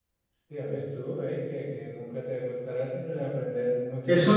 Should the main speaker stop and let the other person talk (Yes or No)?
Yes